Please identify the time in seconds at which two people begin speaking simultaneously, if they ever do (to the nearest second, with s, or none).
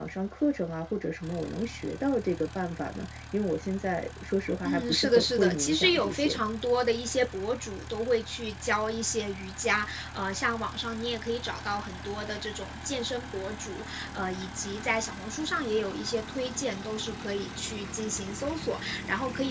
5 s